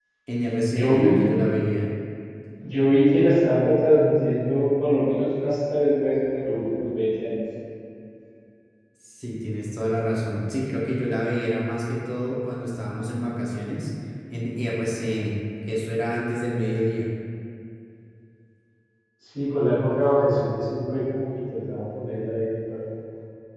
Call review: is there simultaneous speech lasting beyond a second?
No

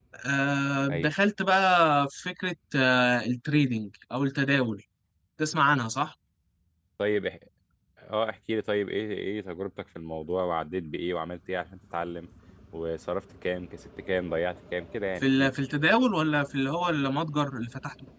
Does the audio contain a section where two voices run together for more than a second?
No

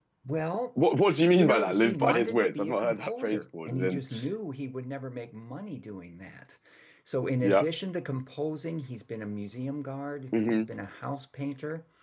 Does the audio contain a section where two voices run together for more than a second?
Yes, from 1.3 s

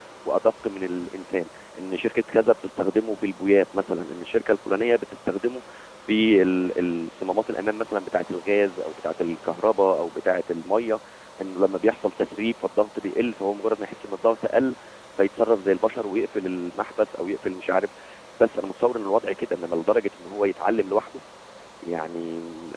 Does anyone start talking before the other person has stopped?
No

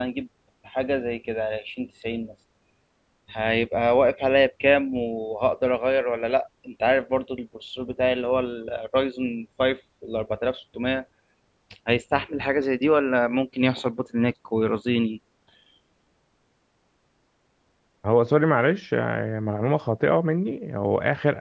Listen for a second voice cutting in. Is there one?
No

